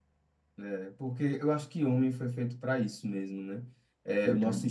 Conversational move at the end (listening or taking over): listening